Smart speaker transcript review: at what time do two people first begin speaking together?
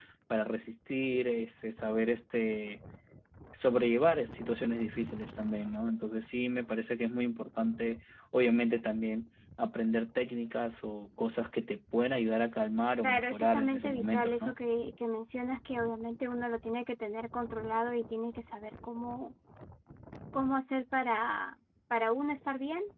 13.0 s

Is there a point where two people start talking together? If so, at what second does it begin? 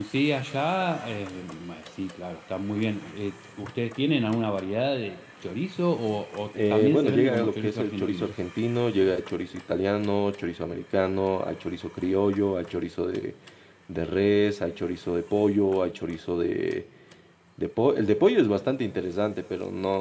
6.5 s

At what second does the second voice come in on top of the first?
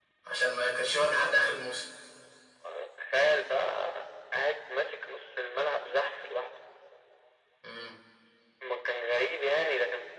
none

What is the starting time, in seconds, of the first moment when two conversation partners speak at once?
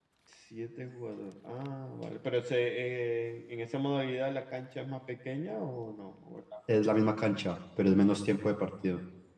none

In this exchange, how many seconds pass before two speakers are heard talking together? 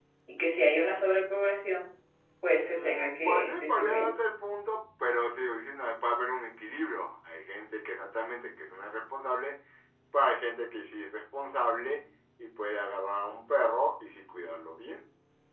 2.6 s

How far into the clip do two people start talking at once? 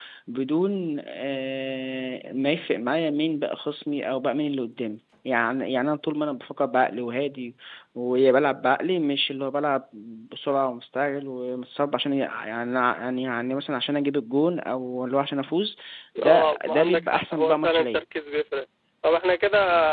16.3 s

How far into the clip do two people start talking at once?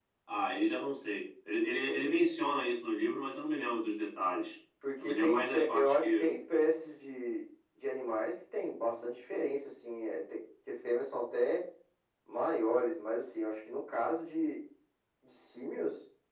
4.8 s

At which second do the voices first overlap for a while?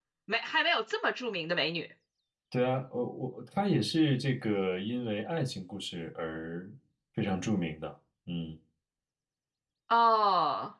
none

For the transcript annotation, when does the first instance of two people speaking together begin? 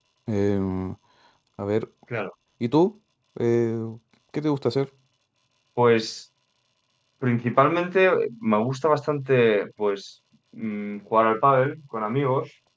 none

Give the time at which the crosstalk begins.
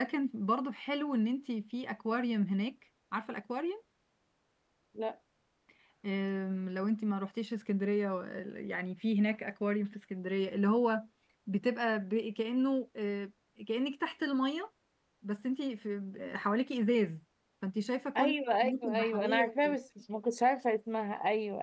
18.2 s

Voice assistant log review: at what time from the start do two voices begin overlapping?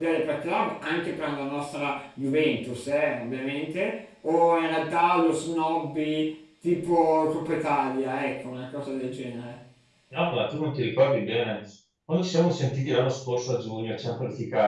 none

